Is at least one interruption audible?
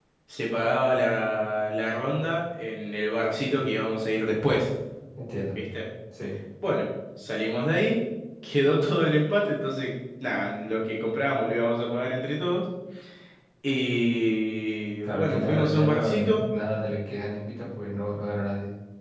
Yes, from 15.0 s

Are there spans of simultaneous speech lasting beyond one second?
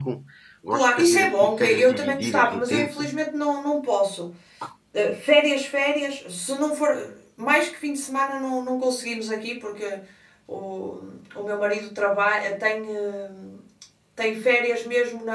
Yes, from 0.7 s

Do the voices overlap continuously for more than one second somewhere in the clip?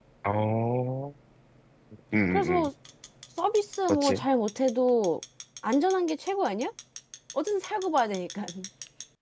No

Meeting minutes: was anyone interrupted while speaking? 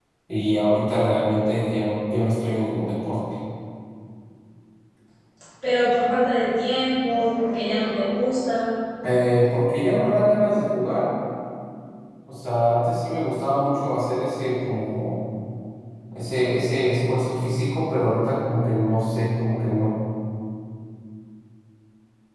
No

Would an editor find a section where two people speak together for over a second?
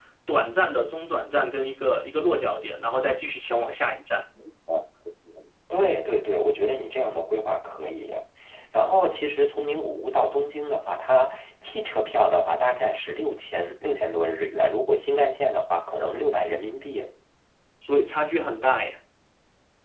No

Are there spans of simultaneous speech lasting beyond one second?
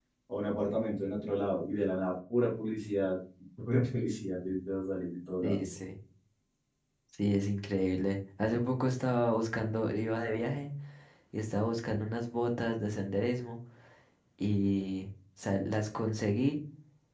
No

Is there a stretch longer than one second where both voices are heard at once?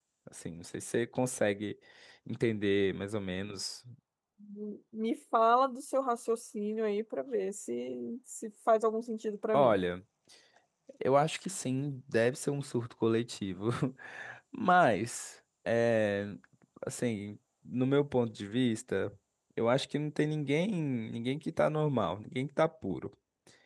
No

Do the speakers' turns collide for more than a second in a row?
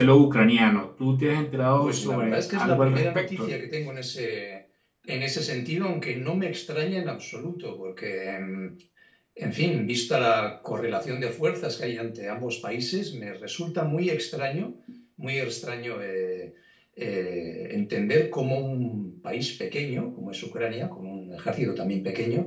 Yes, from 1.8 s

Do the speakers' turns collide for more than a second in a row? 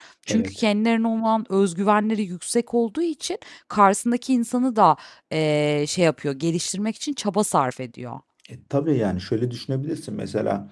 No

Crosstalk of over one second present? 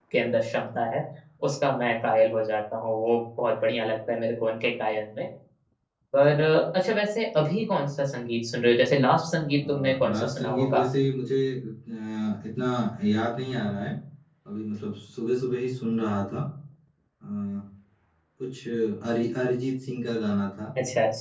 Yes, from 9.6 s

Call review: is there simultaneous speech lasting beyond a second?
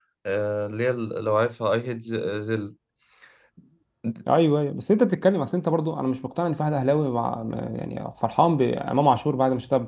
No

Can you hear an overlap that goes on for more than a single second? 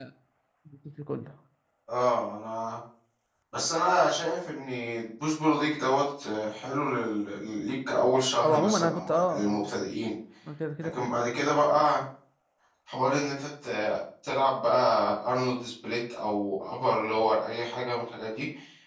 Yes, from 8.4 s

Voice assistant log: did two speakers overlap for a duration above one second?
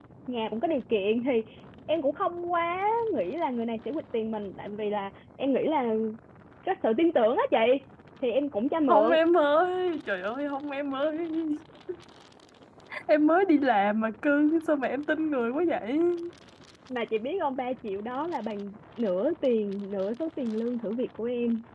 No

